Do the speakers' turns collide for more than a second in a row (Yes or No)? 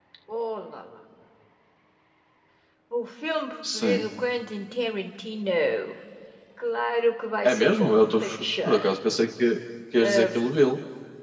Yes